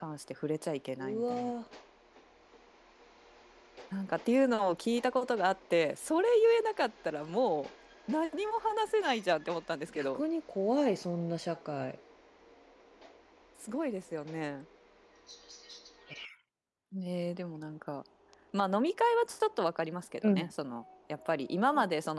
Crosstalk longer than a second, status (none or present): none